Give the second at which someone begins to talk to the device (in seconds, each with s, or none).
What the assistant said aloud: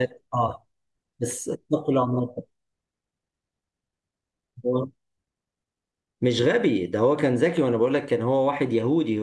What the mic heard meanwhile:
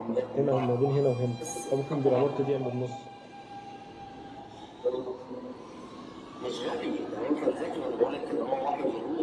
0.4 s